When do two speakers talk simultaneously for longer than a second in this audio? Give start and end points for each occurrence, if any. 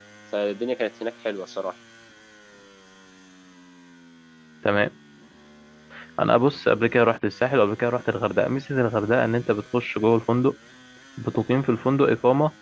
none

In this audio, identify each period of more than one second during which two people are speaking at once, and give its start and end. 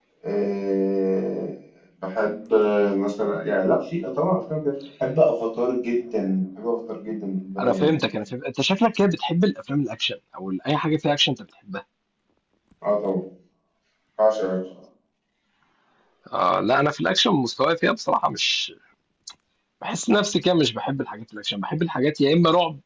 none

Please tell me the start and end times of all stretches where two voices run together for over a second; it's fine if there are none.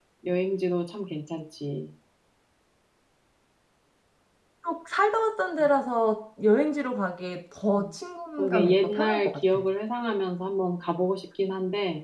8.4-9.6

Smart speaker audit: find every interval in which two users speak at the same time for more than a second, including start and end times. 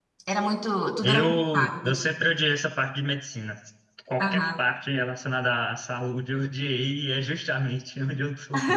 1.0-2.3

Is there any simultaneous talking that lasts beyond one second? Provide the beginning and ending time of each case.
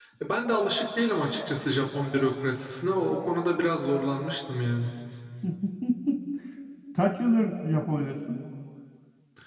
none

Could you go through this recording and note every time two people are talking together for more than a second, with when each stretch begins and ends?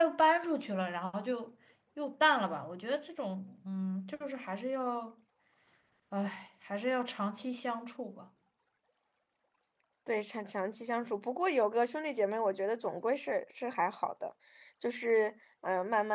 none

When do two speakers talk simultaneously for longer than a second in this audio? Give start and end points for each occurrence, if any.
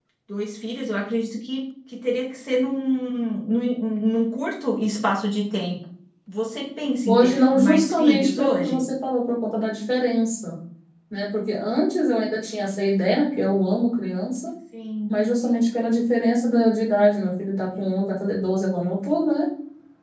7.1-8.8

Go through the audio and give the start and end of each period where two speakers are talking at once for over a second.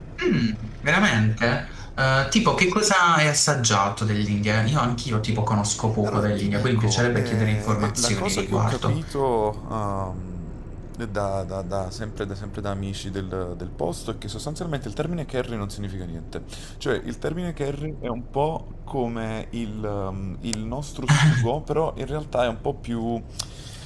6.0-9.0

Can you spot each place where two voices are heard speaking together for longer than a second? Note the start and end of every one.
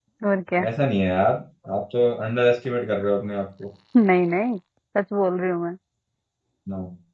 none

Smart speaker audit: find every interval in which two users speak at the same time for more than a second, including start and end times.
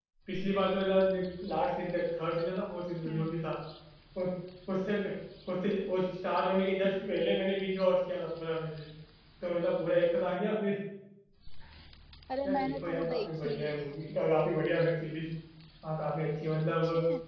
12.4-14.0

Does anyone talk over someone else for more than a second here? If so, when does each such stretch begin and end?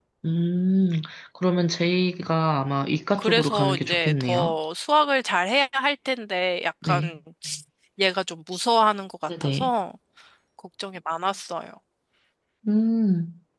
3.2-4.5

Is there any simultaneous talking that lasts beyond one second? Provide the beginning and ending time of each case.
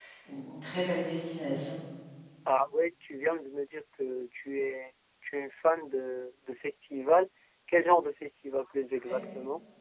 none

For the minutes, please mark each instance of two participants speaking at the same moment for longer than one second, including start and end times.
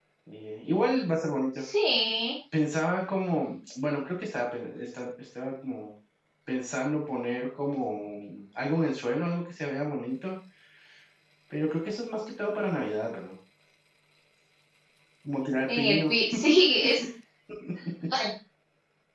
none

